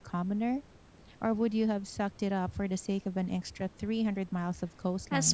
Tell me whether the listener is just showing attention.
No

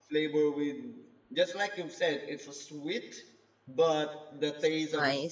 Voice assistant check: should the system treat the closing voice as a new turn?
No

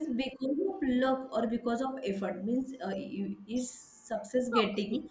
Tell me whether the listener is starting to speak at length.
No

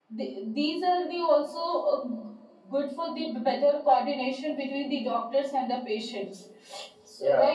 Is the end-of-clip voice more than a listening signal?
Yes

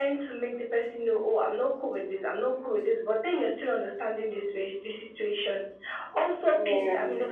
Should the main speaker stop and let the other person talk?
No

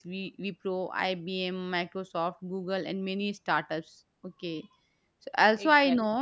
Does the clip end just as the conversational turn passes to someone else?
No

